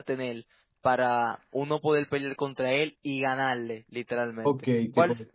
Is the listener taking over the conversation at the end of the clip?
Yes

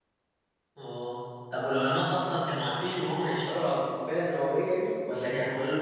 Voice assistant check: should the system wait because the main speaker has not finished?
Yes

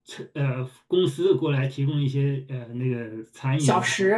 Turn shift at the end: Yes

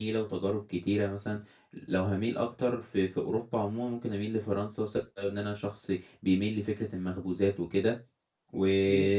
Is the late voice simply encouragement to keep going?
Yes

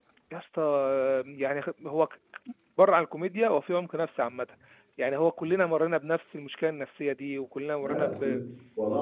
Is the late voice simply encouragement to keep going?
No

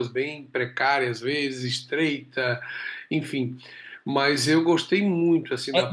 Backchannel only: No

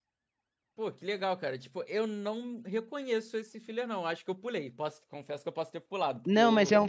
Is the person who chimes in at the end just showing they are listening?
No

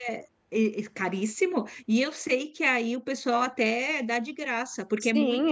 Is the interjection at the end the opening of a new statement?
Yes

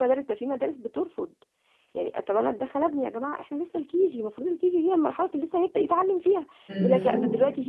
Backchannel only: Yes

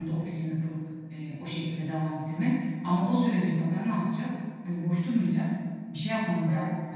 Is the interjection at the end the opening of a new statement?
No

